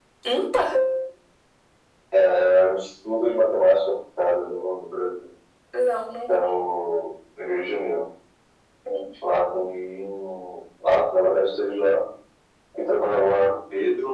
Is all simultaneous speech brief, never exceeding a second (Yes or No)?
Yes